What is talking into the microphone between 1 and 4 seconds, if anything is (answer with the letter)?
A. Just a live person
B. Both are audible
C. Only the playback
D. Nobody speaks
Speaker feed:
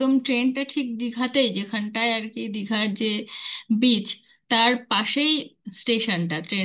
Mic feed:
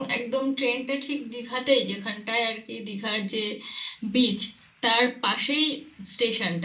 C